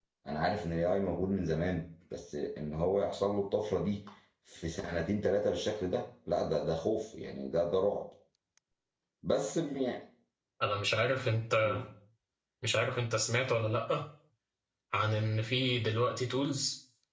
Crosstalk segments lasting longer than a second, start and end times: none

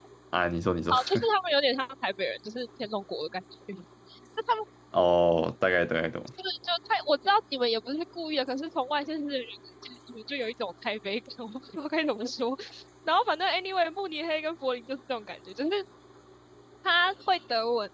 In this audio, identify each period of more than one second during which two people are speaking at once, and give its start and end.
none

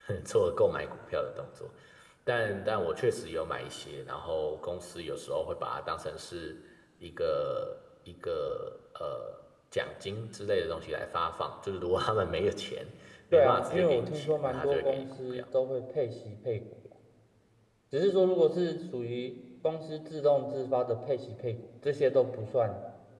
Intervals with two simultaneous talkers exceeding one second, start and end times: 13.3-15.4

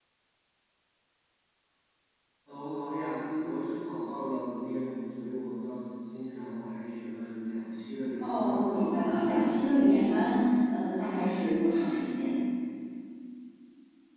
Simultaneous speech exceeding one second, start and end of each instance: 8.2-10.4

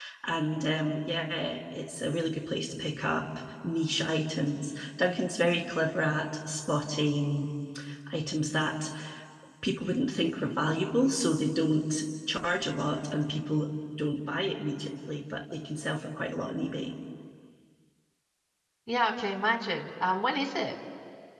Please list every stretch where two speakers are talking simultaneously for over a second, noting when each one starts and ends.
none

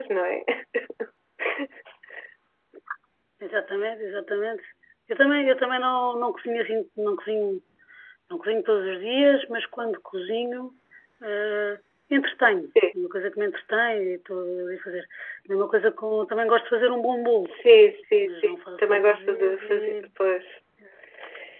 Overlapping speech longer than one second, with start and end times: 18.2-19.9

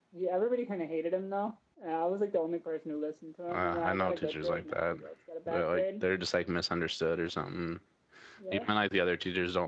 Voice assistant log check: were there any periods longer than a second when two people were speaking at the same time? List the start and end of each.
3.5-4.8

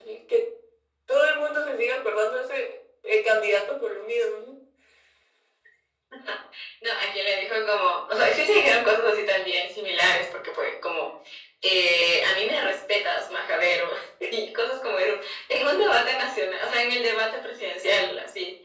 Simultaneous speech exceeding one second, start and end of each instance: none

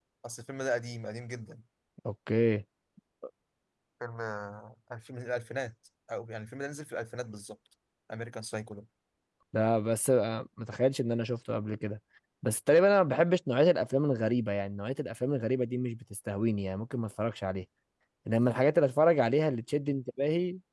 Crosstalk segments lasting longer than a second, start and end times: none

